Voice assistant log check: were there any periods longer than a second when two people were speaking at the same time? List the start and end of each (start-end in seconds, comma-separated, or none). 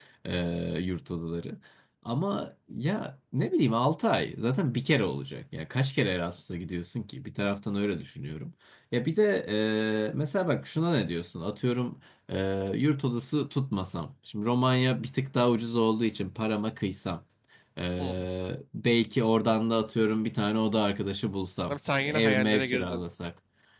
21.7-23.0